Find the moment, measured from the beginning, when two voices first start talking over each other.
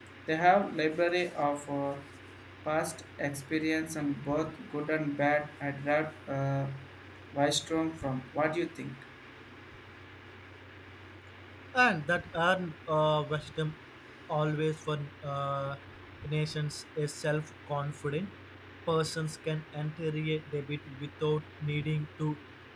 none

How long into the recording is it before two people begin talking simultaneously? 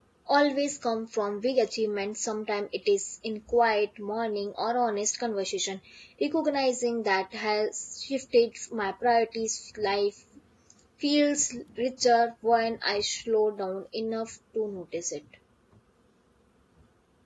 none

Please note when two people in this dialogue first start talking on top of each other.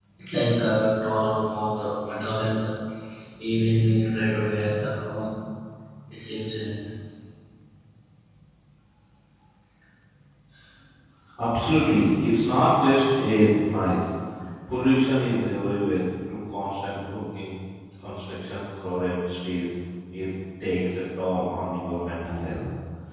none

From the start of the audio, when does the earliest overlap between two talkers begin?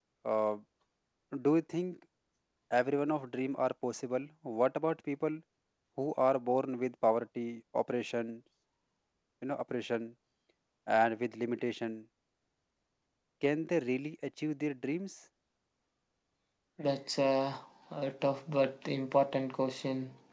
none

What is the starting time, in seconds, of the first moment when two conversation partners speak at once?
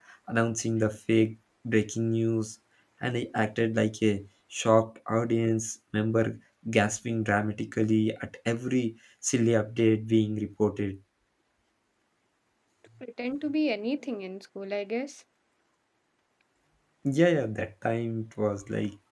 none

